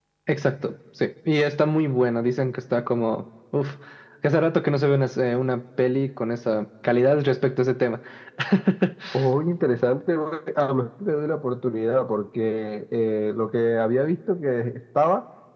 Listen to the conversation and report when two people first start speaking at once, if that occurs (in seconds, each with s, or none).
none